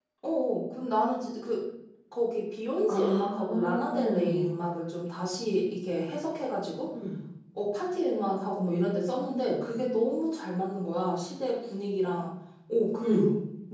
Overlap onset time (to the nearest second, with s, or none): 3 s